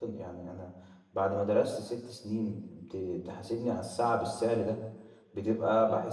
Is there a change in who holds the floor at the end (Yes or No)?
No